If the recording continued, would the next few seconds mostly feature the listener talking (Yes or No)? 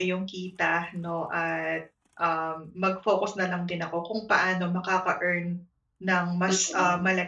No